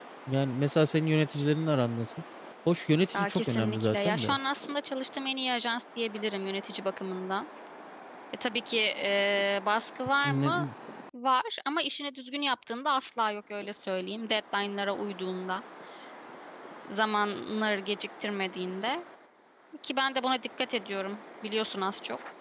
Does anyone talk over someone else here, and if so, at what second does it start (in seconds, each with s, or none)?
3.1 s